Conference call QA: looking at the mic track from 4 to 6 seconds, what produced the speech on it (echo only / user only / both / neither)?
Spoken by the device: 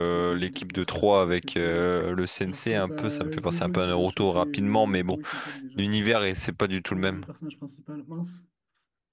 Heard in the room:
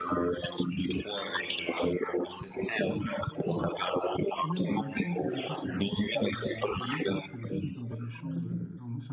both